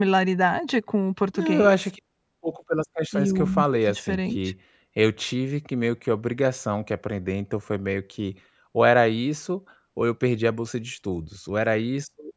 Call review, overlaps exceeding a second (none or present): present